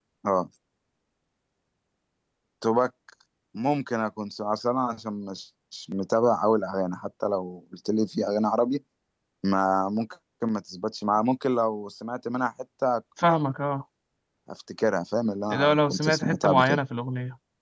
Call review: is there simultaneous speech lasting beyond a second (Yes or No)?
Yes